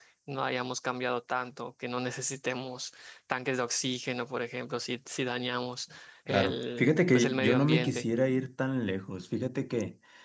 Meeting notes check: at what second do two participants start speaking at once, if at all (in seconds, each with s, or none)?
6.3 s